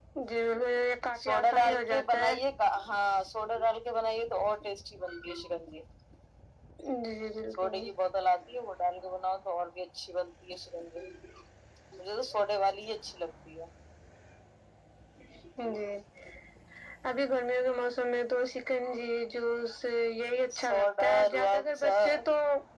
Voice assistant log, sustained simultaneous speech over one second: present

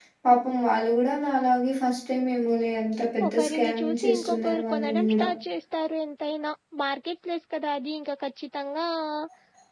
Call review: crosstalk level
present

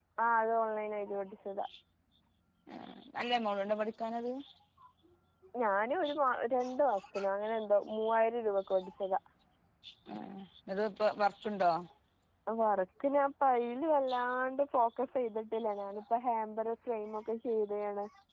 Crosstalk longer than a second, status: none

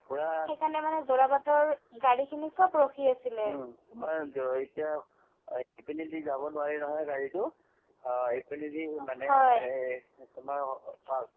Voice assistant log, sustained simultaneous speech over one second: none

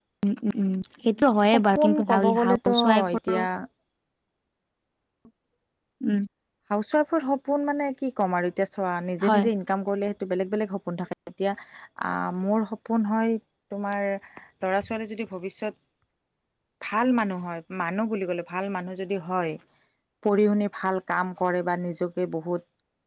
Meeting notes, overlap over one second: present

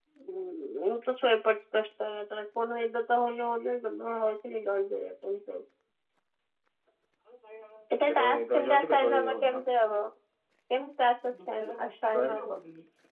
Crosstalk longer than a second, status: present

